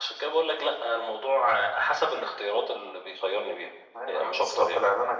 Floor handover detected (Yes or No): Yes